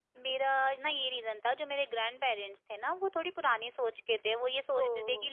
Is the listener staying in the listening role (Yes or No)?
Yes